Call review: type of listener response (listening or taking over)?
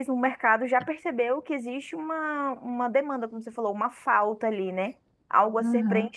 listening